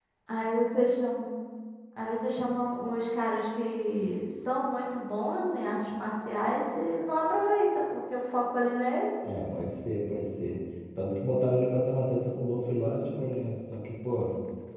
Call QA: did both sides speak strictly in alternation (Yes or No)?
Yes